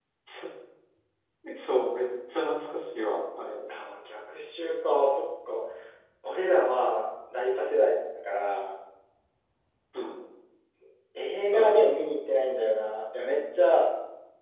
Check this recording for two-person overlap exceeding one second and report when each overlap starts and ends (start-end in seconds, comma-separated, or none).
none